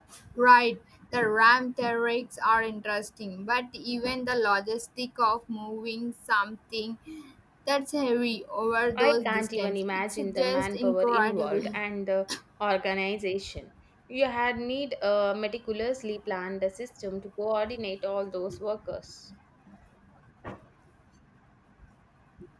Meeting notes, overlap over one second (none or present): present